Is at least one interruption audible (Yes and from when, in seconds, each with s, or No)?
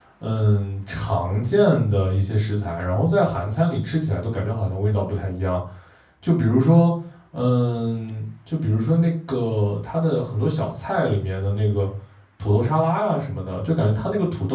No